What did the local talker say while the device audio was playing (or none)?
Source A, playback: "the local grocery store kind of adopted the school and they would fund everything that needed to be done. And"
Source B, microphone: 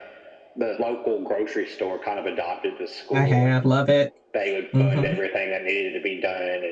I have, love it. Mm-hmm.